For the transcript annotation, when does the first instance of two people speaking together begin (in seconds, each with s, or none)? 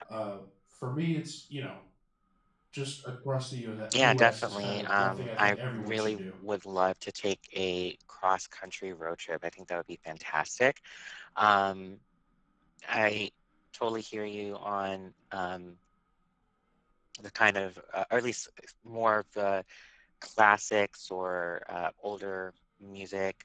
3.9 s